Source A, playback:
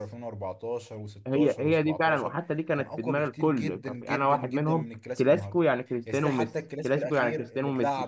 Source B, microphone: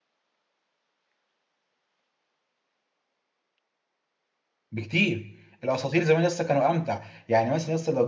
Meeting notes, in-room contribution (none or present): present